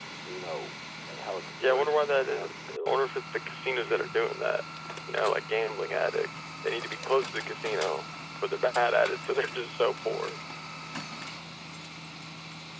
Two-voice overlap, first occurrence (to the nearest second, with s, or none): 2 s